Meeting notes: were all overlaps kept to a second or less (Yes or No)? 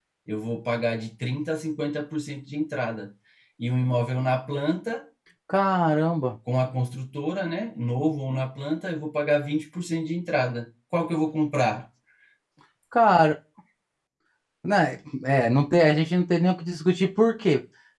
Yes